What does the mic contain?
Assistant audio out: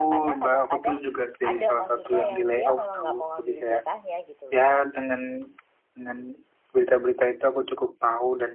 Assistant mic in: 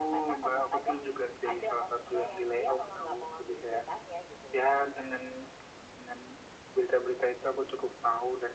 echo only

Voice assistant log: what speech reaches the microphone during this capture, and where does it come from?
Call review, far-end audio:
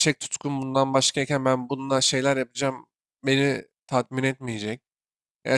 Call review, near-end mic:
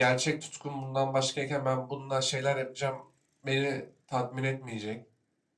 echo only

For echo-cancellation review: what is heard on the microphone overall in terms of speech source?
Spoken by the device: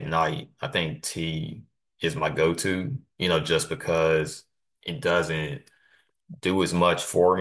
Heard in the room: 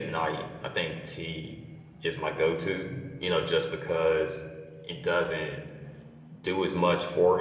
echo only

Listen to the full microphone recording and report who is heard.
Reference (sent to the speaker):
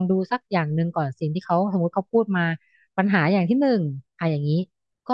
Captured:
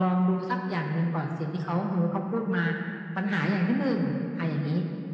echo only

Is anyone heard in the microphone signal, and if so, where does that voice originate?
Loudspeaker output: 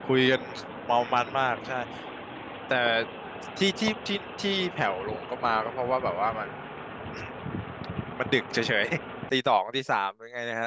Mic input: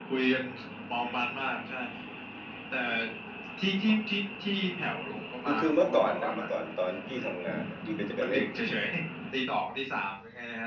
both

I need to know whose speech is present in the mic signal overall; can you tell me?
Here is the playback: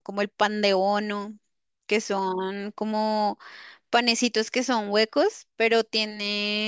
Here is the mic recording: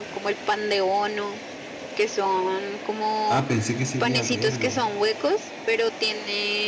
both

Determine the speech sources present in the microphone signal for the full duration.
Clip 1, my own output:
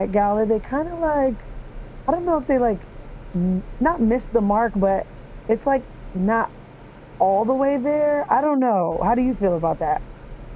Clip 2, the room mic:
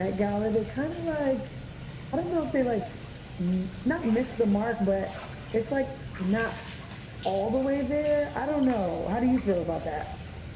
echo only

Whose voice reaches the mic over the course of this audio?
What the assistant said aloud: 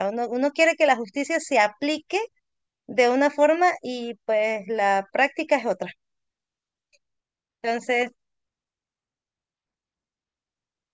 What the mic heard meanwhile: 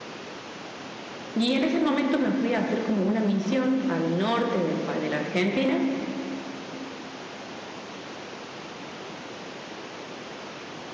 user only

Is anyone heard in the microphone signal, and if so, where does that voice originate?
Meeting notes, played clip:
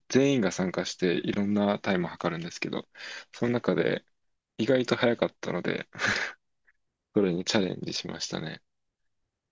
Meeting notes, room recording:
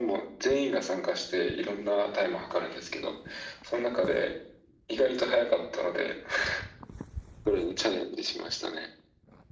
echo only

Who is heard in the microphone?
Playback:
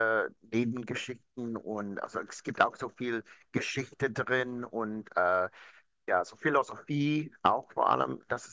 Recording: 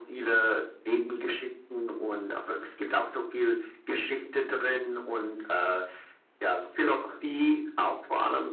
echo only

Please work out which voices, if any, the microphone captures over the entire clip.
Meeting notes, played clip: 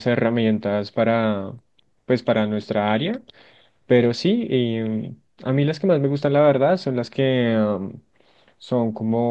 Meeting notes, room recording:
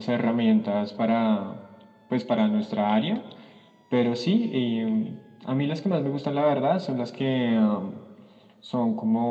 echo only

